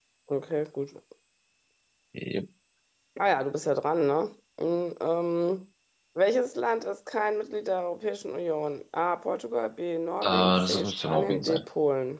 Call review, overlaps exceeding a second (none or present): present